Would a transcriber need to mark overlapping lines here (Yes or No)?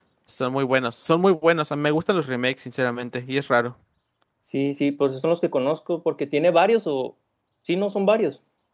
No